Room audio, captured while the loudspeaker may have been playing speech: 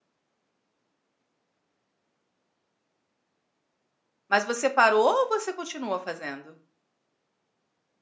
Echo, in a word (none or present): none